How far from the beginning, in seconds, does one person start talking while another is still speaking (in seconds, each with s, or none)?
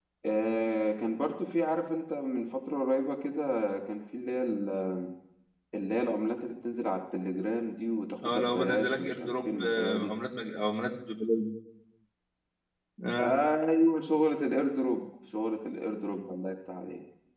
8.2 s